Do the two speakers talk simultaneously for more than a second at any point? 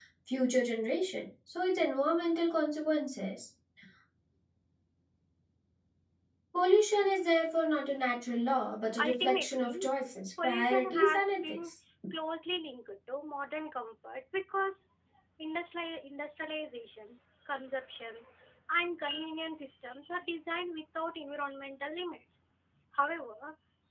Yes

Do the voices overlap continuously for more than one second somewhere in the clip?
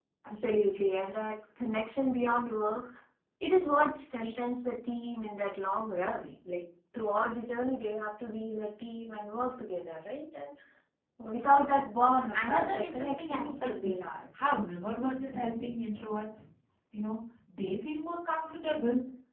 Yes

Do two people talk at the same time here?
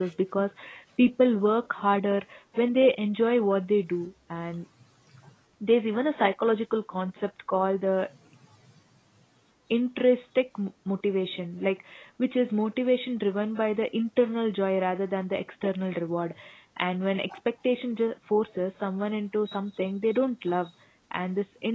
No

